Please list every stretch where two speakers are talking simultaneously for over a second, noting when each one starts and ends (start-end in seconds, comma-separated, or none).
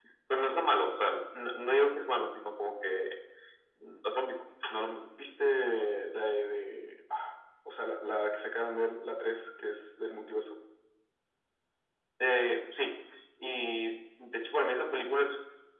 none